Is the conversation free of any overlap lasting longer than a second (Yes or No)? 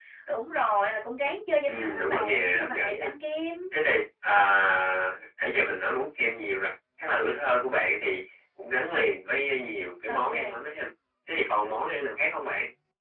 No